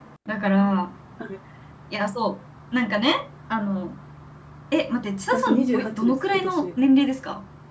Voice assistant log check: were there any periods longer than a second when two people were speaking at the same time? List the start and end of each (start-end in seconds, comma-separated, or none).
5.3-6.7